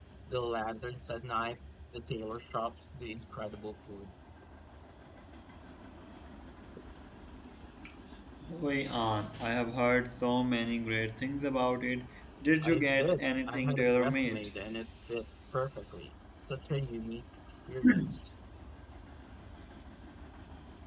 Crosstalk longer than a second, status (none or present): present